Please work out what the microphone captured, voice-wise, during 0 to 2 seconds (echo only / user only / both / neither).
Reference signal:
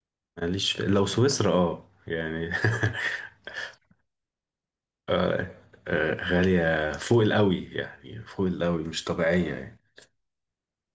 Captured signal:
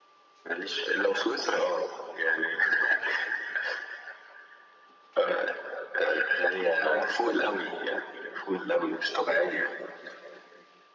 echo only